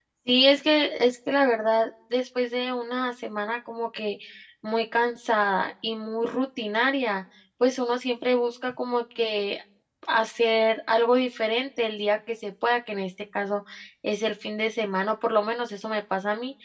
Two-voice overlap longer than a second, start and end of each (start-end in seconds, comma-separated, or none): none